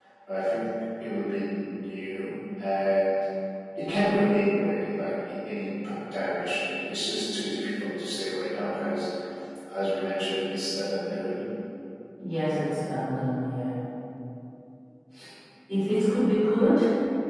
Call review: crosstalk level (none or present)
none